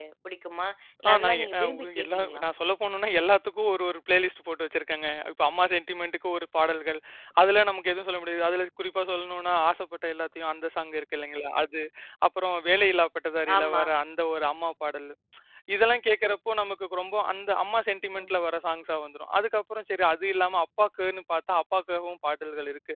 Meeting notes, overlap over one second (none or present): present